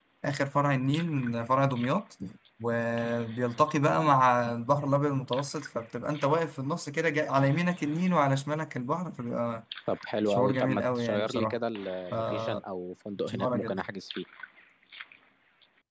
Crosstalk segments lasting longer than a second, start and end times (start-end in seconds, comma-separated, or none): 10.3-11.6